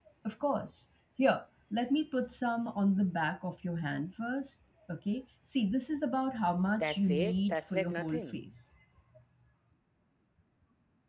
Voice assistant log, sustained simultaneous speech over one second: present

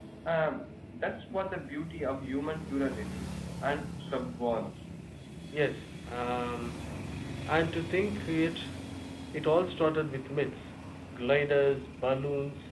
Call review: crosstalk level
none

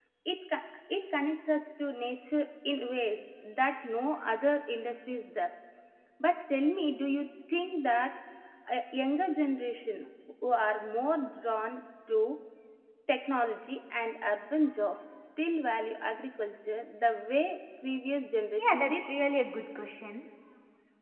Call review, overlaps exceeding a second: none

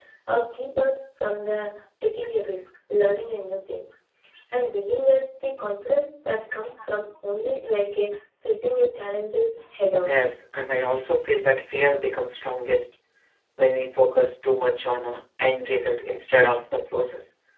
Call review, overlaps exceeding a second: none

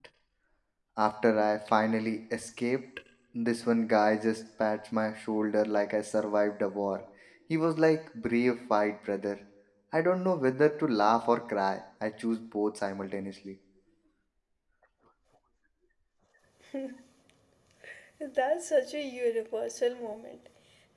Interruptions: none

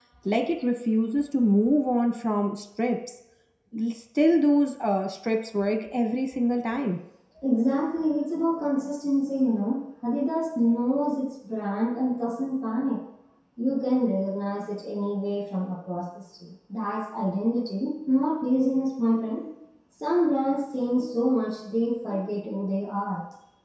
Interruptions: none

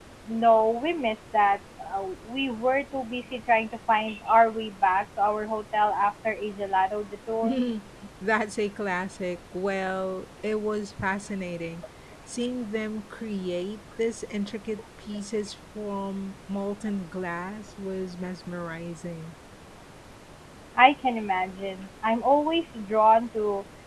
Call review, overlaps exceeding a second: none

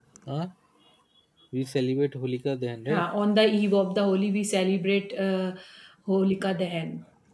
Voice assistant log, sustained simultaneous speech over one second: none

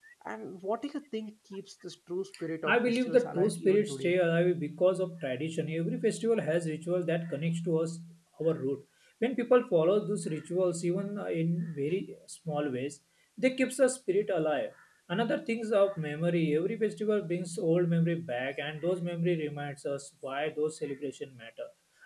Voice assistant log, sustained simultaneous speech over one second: present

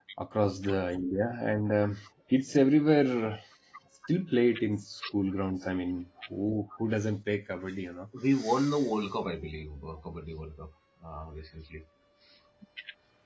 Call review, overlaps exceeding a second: none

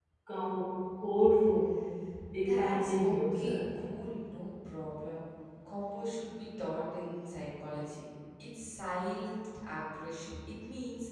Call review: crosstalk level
present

